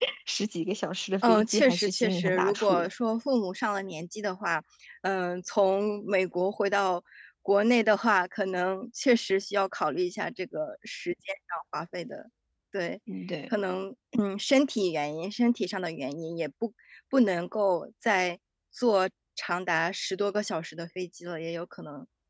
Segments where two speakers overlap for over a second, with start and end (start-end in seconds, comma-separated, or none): 1.3-2.9